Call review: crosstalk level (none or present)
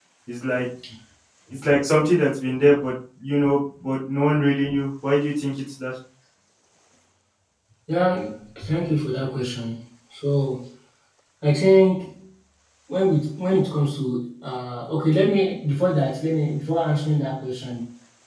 none